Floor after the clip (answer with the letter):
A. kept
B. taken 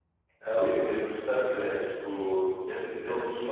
A